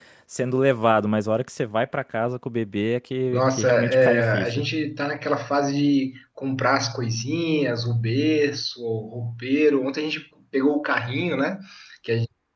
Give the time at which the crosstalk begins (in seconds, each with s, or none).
3.3 s